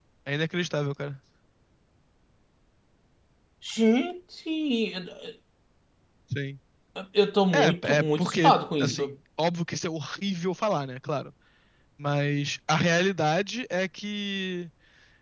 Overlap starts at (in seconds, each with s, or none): 7.5 s